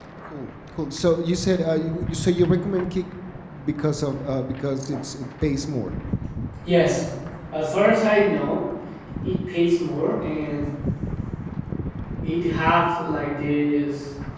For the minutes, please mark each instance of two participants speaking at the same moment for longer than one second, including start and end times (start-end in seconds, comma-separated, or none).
none